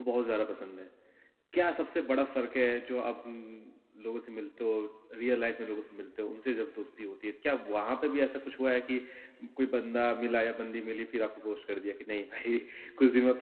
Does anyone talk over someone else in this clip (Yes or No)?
No